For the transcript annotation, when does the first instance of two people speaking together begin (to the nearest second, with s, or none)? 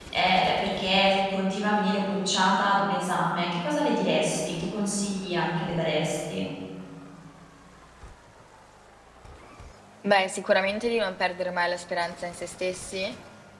none